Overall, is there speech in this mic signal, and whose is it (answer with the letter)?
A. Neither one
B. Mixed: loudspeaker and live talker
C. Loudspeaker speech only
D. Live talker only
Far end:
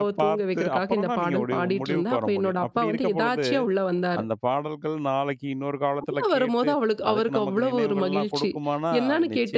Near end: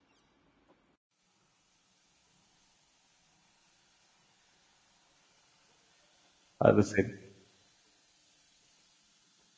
D